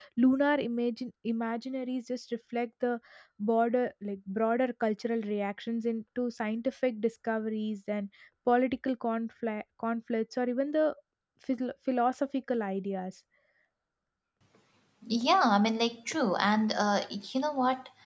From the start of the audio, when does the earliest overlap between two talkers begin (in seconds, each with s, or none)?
none